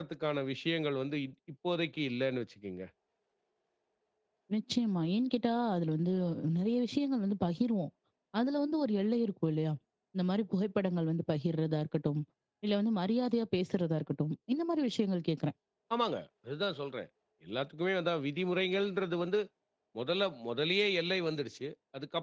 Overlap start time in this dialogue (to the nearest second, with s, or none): none